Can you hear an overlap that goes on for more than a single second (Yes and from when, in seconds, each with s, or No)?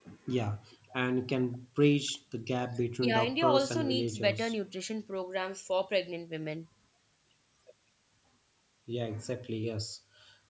Yes, from 3.0 s